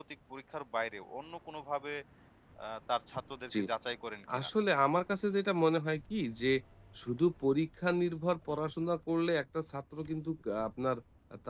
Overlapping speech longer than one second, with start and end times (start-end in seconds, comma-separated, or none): none